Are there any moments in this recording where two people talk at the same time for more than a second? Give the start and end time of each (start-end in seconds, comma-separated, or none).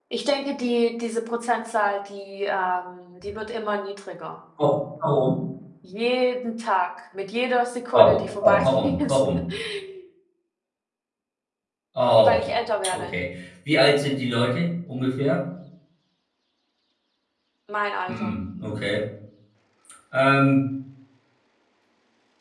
7.9-9.2